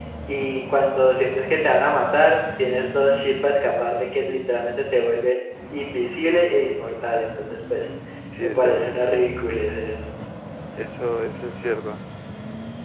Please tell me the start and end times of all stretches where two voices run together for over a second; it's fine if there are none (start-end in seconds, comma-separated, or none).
none